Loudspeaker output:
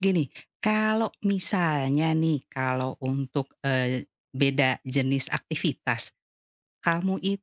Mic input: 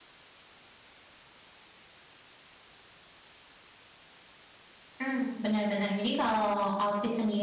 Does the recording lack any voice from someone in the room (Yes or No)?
No